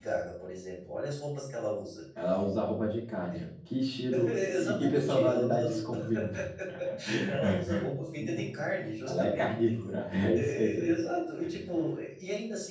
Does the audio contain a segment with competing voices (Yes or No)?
Yes